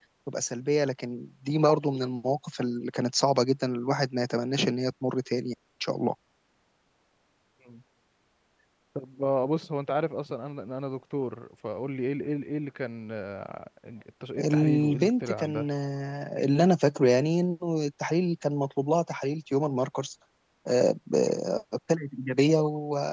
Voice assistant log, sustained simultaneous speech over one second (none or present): present